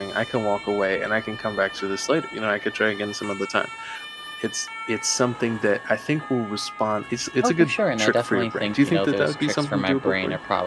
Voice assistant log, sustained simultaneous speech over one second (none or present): present